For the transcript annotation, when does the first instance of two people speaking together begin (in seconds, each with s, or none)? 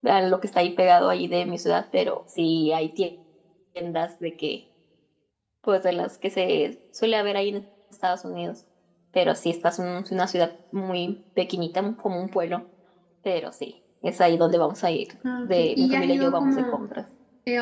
15.2 s